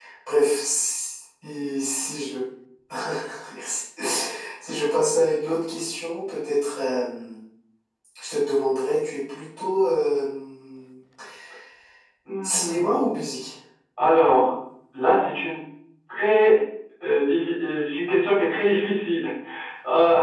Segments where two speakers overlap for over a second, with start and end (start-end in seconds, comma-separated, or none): none